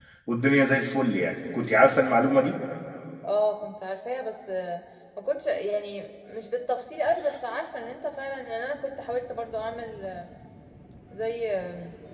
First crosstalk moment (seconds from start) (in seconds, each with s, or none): none